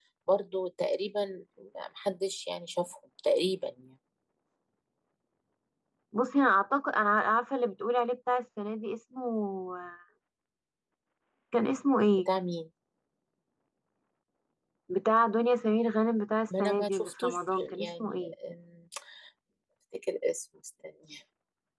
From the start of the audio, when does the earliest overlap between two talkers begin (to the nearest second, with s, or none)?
17 s